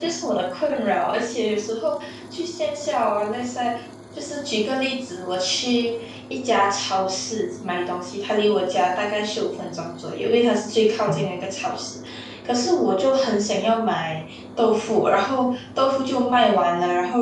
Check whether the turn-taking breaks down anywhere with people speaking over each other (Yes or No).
No